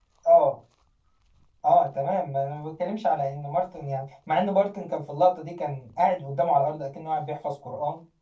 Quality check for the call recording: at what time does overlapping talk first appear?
none

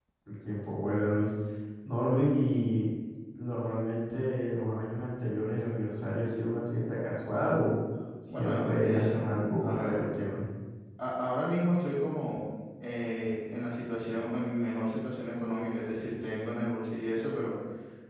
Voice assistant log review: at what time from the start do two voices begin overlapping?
8.3 s

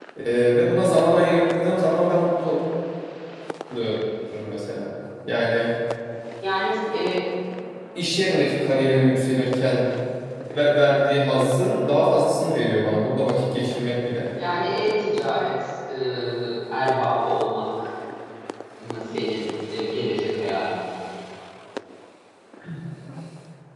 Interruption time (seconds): none

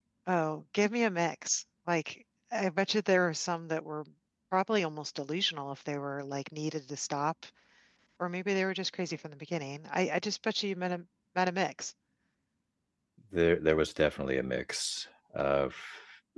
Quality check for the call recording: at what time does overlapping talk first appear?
none

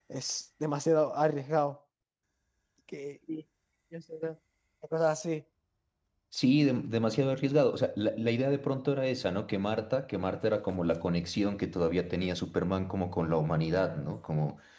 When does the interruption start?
none

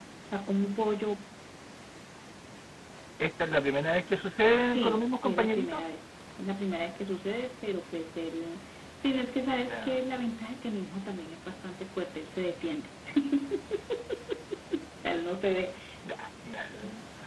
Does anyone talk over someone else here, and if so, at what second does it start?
4.5 s

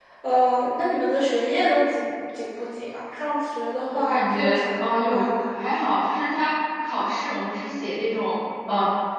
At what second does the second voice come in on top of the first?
3.9 s

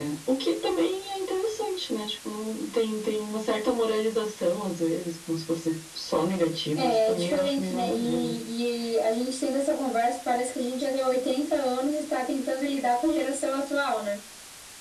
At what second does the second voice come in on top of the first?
6.8 s

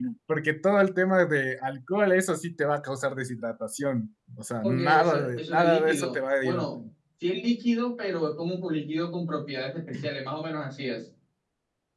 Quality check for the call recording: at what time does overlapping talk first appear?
4.6 s

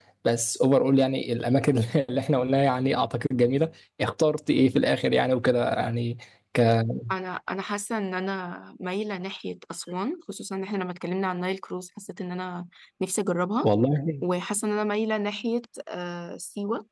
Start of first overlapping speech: none

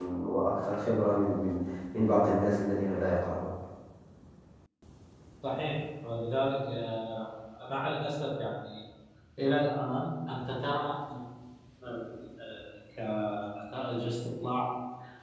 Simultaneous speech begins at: none

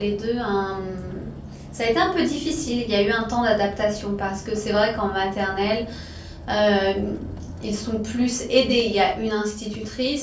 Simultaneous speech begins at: none

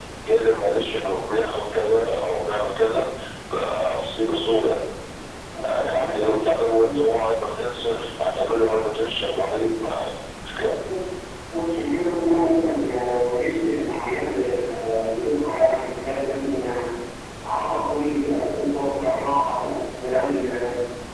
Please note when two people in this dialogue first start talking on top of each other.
5.7 s

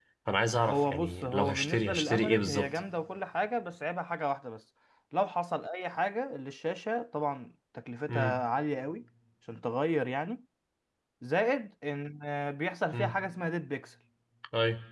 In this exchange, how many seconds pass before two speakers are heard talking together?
0.6 s

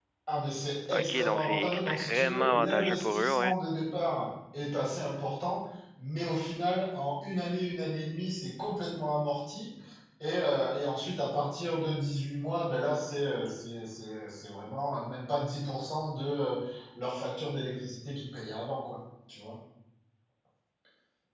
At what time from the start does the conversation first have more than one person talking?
0.9 s

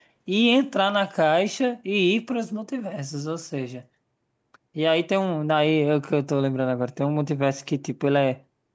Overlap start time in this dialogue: none

